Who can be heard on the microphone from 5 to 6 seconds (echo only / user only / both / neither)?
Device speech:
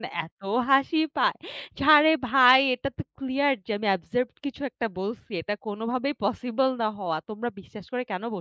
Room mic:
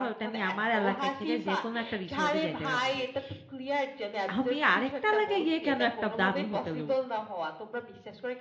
both